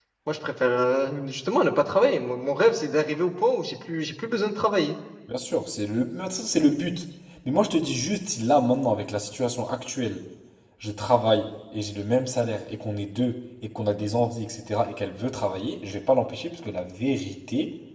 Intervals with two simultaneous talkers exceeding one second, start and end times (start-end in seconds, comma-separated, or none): none